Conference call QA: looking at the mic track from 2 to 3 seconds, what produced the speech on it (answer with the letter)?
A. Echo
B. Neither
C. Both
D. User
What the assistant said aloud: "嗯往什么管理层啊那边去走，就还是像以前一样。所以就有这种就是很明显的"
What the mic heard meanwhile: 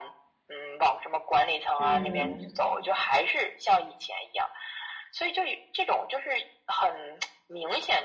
C